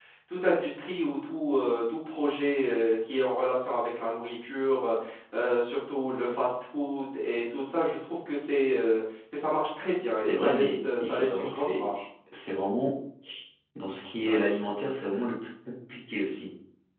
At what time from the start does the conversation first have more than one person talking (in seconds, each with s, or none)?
10.3 s